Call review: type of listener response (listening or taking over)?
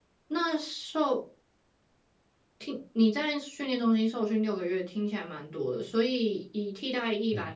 listening